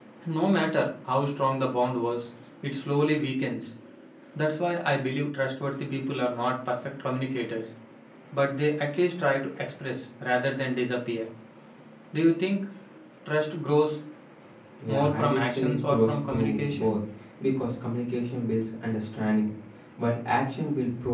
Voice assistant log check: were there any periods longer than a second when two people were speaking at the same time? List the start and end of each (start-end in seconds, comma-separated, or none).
14.9-17.0